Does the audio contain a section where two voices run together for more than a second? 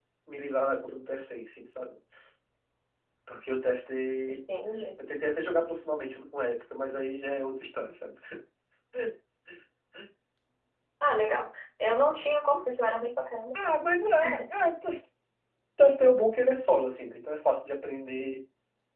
No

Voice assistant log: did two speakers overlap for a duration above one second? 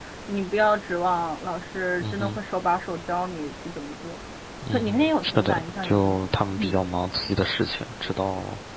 Yes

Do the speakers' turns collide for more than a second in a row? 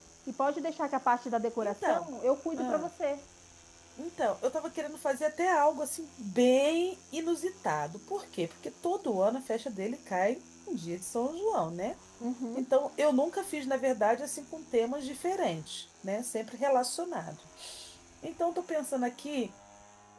No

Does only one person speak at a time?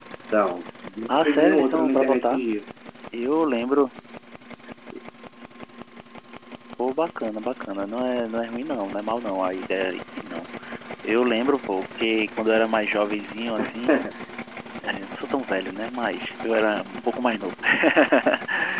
No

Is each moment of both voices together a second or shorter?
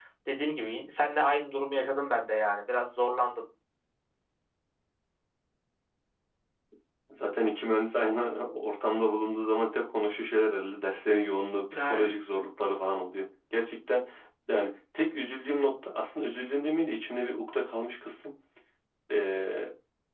Yes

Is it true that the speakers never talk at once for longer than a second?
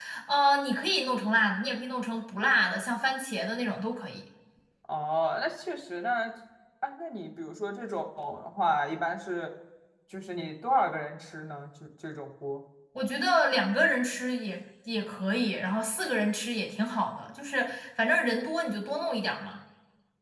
Yes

